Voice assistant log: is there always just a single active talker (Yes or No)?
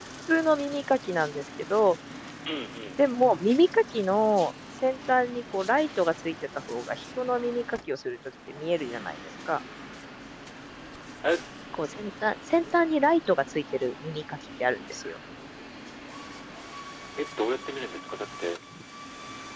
Yes